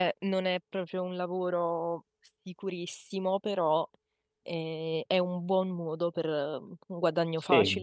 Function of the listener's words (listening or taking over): taking over